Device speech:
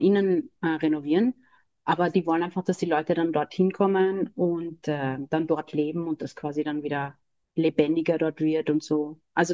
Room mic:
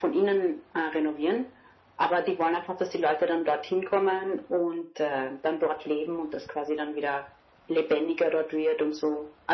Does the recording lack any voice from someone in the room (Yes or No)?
Yes